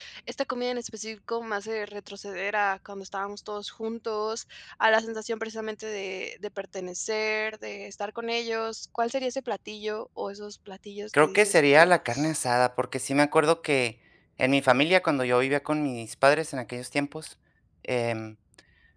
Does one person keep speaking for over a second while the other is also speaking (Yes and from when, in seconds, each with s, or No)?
Yes, from 11.1 s